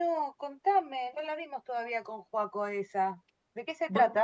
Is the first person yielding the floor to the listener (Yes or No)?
Yes